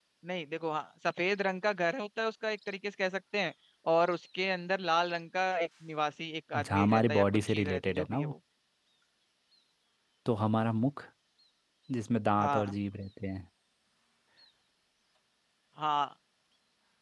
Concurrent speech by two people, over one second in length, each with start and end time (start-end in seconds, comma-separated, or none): 6.5-8.3